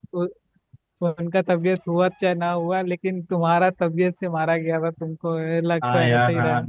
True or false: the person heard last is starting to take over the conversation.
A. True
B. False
A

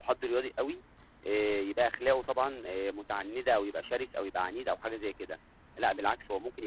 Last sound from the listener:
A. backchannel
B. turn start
A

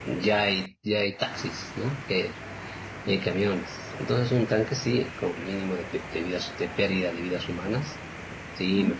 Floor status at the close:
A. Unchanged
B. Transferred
A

